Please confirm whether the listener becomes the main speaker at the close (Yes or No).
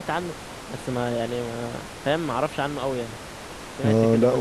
Yes